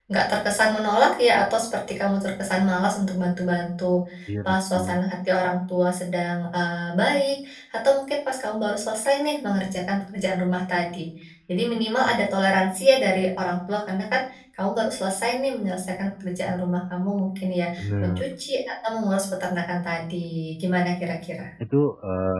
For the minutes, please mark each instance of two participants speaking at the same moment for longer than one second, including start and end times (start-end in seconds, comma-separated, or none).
none